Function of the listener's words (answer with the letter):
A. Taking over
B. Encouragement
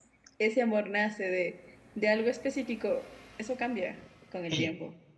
A